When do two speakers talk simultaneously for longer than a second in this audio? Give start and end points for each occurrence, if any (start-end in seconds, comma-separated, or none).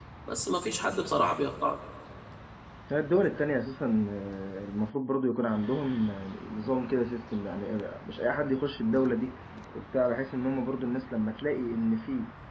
none